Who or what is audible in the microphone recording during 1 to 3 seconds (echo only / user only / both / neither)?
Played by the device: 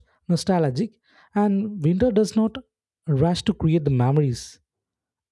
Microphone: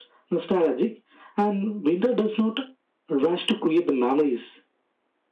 echo only